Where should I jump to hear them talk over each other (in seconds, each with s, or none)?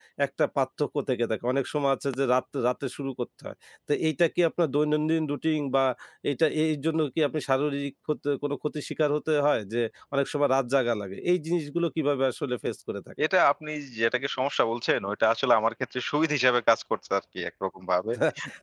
none